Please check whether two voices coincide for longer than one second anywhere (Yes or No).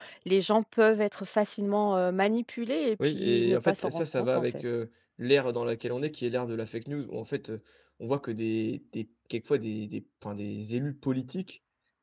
Yes